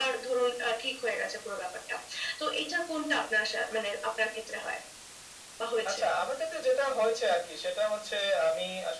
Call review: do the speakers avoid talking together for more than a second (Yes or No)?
Yes